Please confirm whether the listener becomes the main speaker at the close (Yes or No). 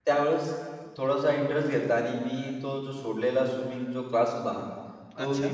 No